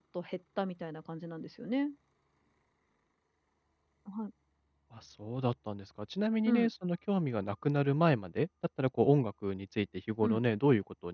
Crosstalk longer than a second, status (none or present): none